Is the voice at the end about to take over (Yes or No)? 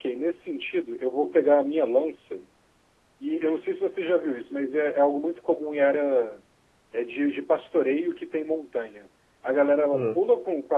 No